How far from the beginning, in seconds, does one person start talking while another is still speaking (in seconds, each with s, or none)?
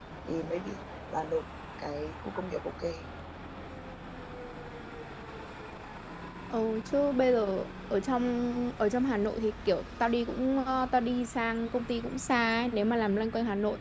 none